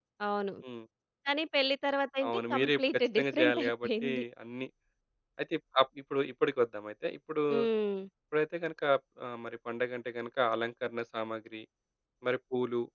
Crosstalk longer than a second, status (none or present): present